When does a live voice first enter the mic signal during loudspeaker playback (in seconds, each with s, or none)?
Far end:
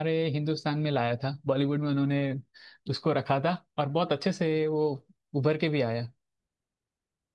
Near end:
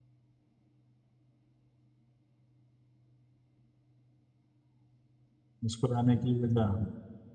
5.6 s